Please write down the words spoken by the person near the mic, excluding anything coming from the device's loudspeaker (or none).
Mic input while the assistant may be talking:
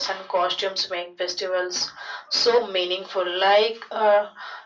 none